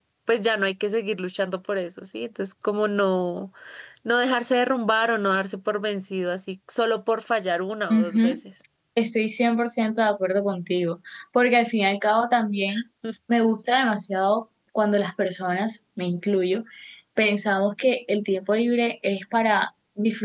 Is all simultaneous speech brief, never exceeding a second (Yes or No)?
Yes